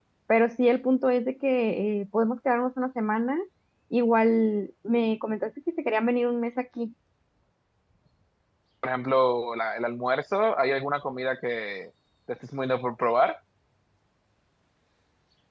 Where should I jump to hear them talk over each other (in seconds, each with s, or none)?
none